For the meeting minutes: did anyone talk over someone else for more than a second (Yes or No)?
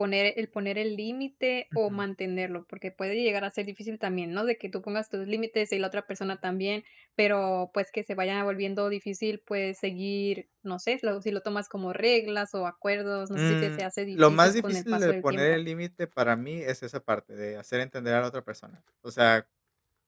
Yes